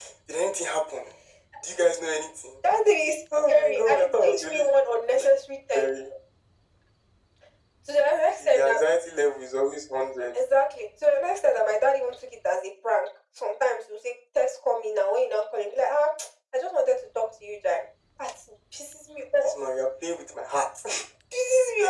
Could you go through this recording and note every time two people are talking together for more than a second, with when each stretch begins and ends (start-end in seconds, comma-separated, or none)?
3.5-4.7